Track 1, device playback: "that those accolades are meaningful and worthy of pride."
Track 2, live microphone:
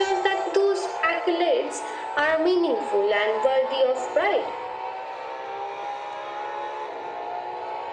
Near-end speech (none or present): none